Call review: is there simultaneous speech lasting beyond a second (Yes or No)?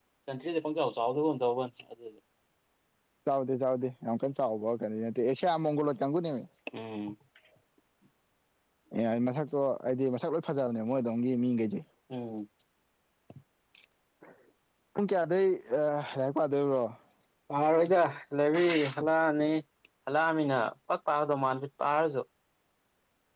No